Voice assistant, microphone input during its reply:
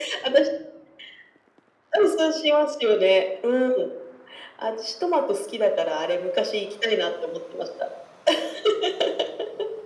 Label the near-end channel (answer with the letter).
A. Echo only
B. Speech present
A